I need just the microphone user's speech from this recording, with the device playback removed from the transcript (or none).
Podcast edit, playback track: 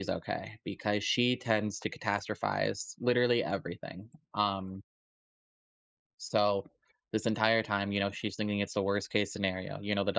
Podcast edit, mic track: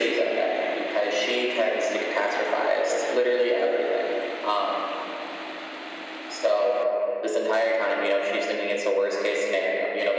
none